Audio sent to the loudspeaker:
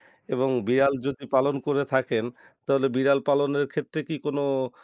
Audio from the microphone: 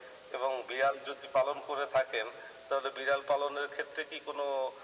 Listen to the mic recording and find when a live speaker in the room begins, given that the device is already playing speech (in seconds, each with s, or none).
none